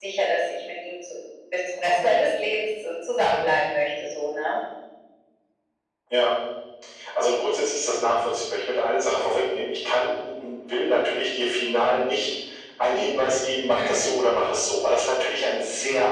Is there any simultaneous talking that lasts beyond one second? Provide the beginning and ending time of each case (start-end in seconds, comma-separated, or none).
none